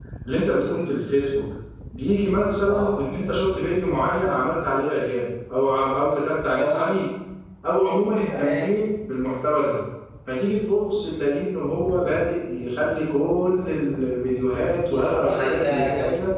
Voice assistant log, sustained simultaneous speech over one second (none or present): present